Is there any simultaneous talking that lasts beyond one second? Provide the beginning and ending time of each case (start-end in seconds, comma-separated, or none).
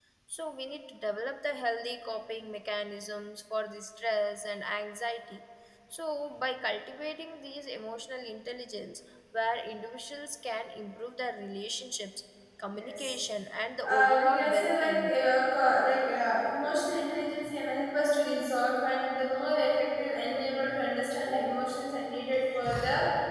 13.9-15.1